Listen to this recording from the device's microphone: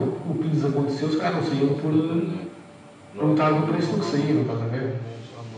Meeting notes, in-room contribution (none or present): present